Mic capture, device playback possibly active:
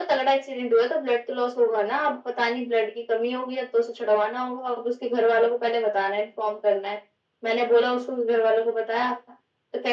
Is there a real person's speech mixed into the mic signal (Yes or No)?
No